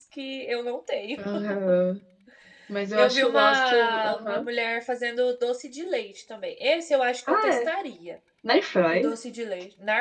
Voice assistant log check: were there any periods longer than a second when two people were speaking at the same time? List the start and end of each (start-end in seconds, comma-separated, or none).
3.0-4.4